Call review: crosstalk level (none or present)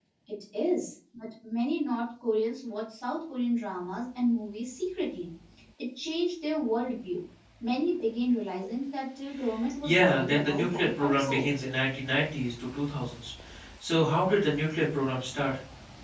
present